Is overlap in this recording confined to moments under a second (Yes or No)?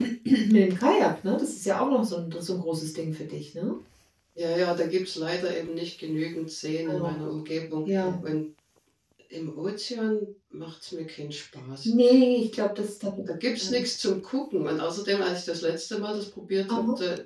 Yes